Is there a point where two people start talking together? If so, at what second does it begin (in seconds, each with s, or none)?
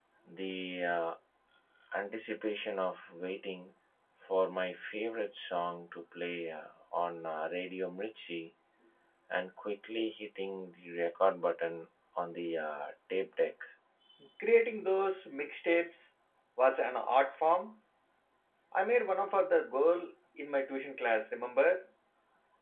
none